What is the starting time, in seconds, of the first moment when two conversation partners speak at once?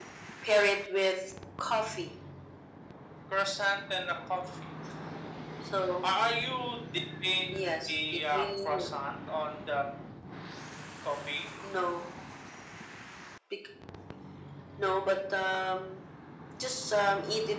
7.5 s

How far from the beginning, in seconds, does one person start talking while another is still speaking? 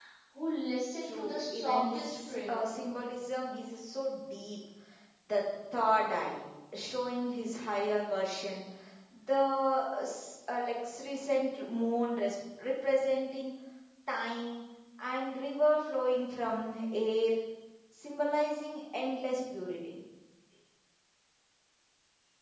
1.0 s

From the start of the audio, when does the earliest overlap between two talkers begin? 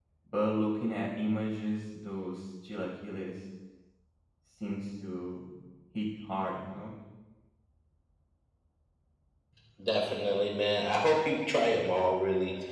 none

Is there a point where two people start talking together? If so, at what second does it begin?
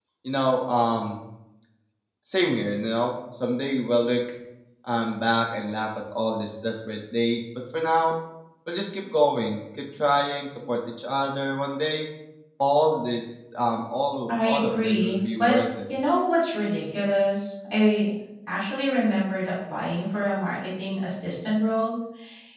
14.3 s

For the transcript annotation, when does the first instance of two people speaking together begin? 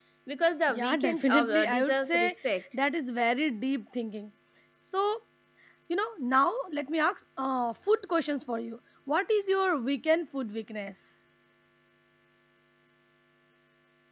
0.7 s

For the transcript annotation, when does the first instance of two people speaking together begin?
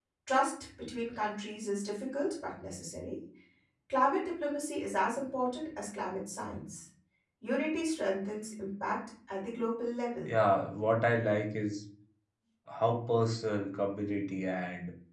none

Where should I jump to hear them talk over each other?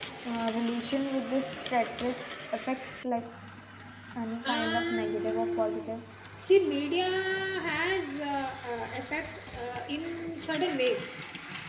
4.4 s

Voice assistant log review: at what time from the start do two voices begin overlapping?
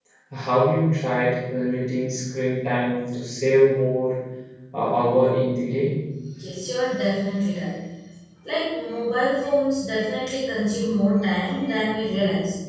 none

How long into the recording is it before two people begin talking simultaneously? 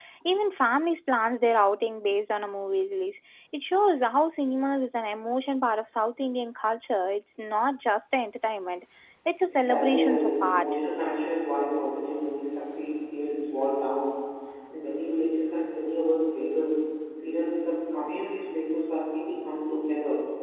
9.5 s

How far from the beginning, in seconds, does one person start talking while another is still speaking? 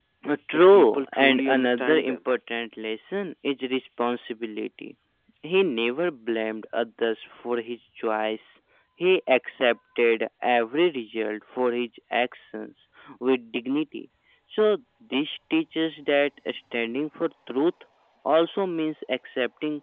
0.7 s

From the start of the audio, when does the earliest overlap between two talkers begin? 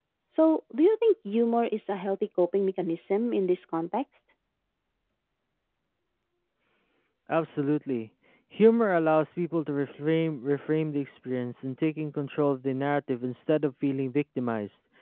none

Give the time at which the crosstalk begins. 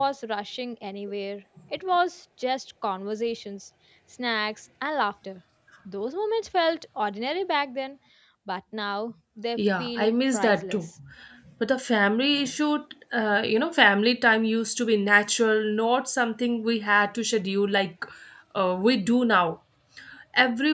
9.6 s

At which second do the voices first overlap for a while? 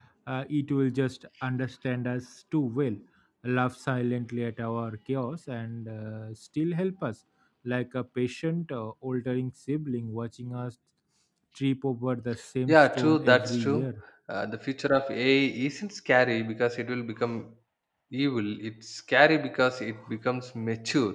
12.7 s

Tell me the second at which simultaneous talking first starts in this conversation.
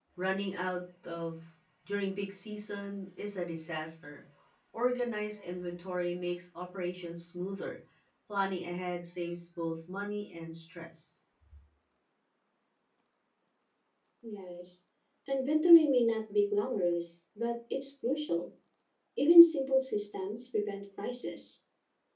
none

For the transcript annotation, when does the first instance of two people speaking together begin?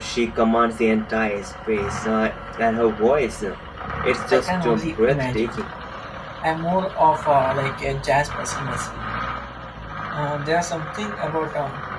4.3 s

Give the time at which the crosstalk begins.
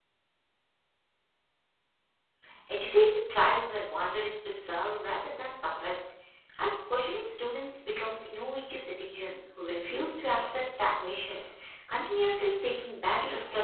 none

